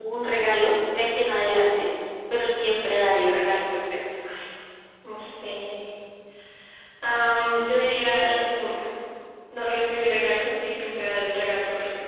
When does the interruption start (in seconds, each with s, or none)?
none